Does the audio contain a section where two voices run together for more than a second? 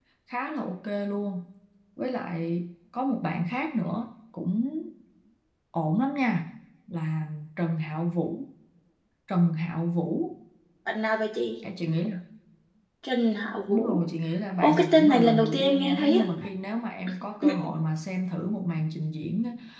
Yes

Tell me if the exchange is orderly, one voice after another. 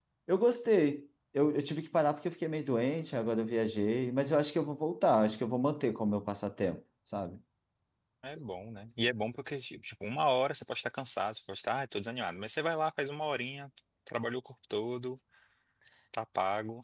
Yes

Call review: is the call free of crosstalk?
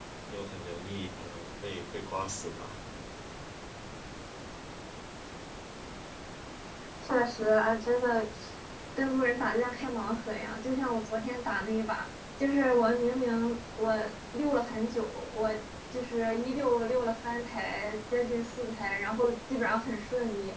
Yes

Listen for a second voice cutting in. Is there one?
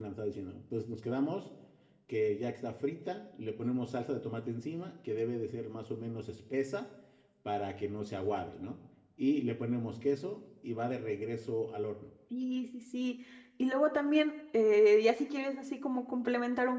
No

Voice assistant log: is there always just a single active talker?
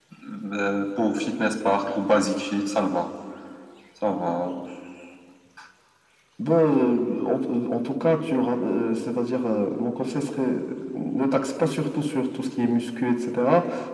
Yes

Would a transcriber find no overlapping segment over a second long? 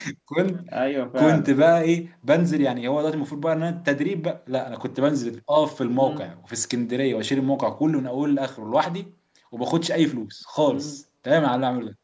Yes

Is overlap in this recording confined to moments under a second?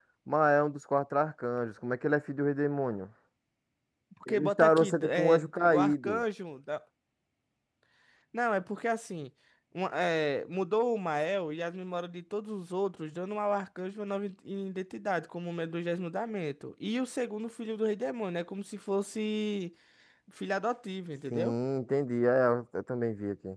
No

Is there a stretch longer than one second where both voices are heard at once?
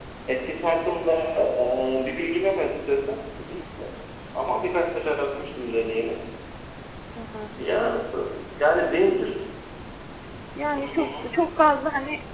No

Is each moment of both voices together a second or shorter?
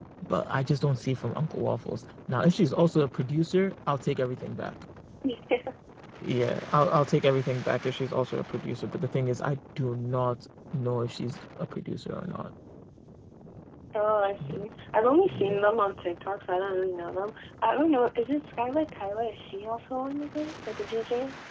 Yes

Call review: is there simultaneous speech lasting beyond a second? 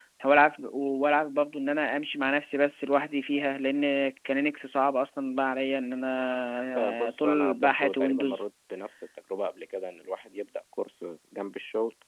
Yes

